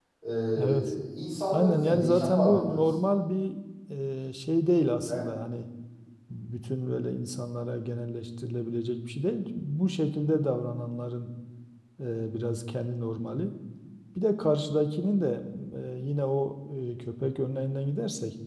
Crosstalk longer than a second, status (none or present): present